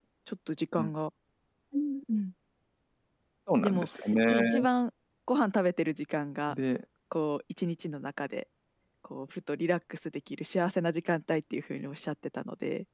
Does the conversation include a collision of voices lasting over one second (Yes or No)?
No